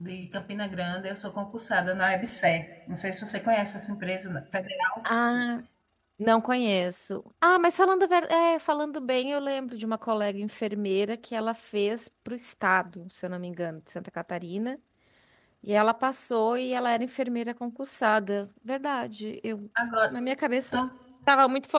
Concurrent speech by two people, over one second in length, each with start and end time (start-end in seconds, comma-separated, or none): none